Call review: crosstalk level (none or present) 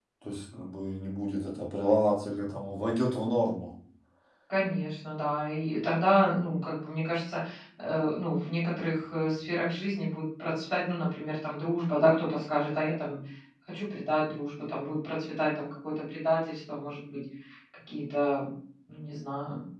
none